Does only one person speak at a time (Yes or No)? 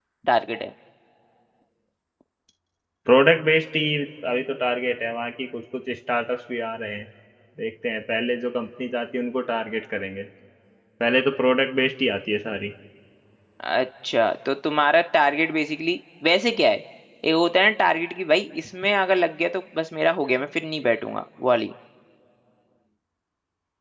Yes